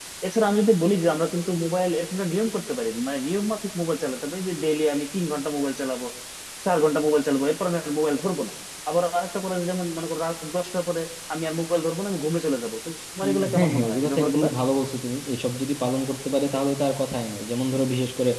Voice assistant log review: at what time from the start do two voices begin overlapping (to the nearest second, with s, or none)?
13 s